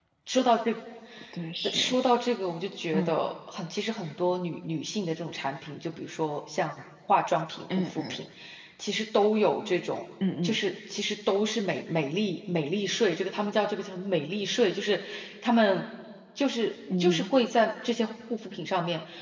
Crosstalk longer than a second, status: none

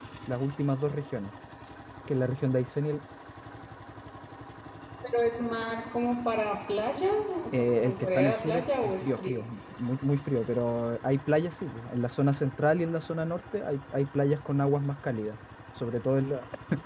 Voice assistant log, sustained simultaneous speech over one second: present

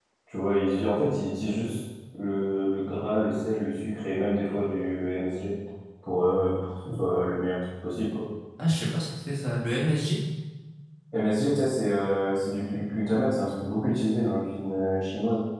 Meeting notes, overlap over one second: none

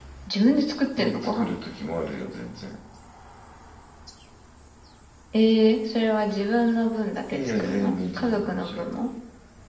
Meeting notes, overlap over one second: present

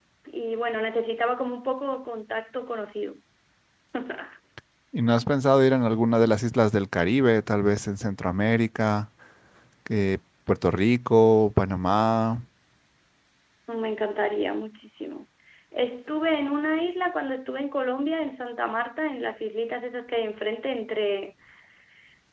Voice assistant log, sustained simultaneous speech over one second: none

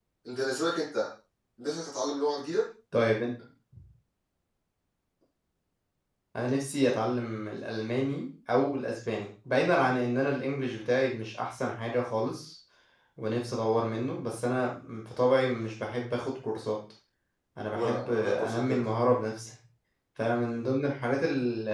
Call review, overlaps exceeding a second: present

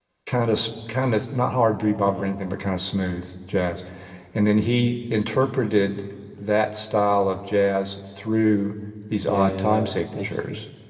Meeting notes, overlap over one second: present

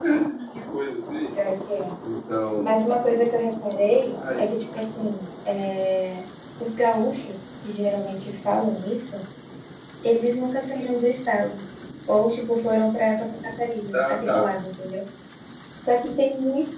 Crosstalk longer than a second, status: none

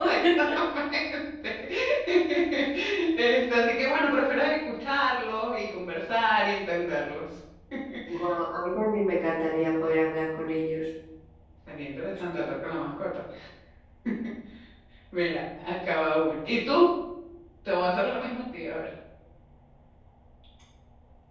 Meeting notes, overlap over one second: none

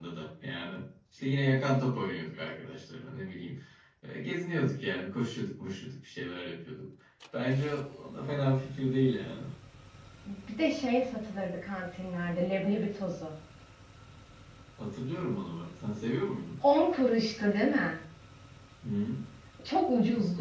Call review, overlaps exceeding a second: none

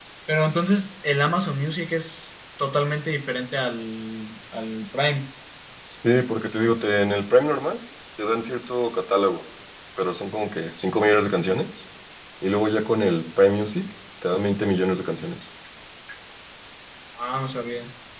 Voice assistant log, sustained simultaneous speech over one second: none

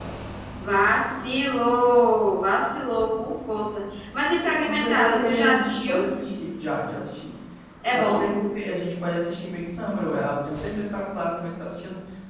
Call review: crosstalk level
present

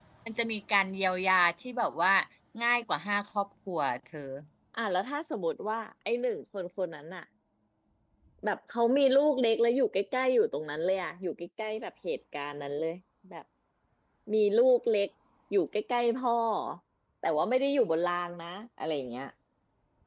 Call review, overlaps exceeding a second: none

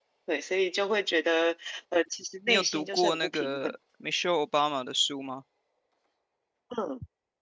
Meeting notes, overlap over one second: present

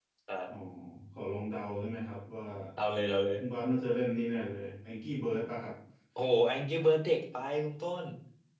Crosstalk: none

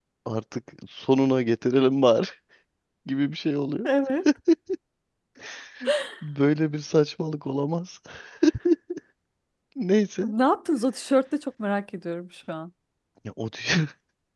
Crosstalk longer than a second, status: none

